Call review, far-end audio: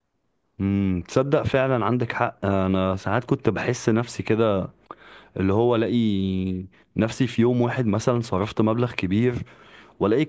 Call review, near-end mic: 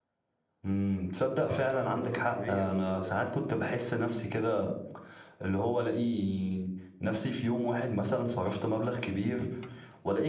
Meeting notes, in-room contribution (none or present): present